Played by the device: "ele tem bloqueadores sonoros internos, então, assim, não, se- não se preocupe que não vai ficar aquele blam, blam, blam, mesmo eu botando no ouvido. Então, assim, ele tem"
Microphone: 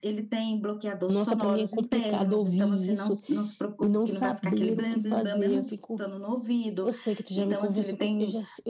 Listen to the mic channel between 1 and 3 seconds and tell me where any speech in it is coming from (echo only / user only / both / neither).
both